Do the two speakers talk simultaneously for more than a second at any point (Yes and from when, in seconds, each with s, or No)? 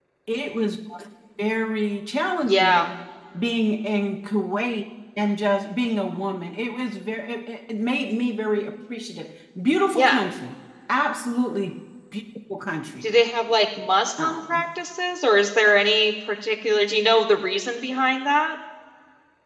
No